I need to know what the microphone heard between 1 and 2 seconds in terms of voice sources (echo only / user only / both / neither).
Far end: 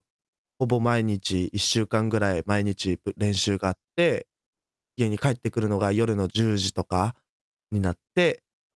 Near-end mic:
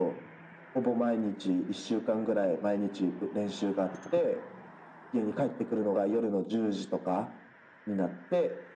echo only